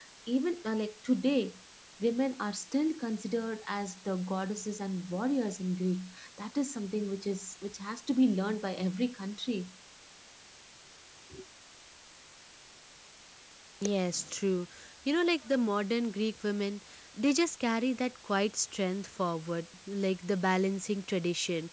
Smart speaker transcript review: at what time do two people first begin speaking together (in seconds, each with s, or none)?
none